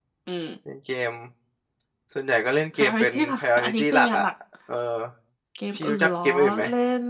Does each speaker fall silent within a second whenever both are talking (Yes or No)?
No